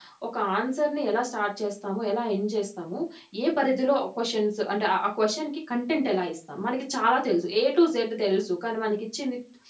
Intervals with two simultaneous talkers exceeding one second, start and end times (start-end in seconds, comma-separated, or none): none